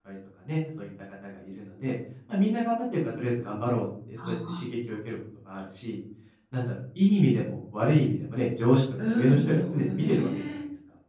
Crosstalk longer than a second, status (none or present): present